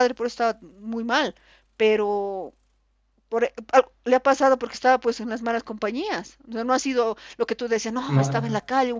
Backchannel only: Yes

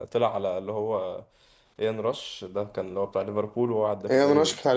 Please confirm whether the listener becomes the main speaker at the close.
Yes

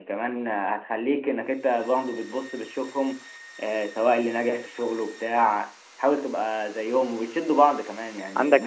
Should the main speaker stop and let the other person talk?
No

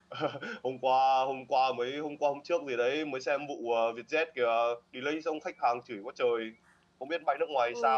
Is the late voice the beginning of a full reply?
Yes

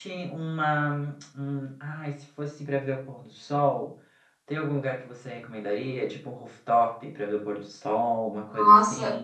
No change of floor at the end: No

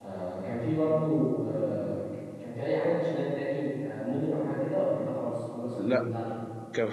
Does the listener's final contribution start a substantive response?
Yes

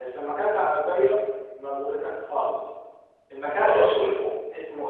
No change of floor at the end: Yes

